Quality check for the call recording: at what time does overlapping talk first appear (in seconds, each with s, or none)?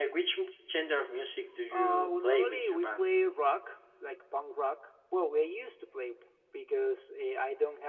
1.7 s